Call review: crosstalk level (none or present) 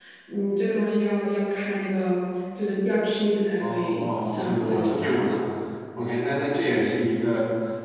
present